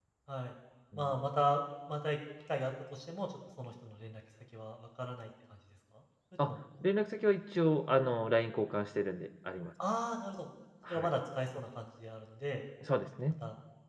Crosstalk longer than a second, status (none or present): none